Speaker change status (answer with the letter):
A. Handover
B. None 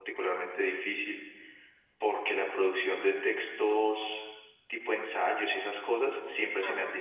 B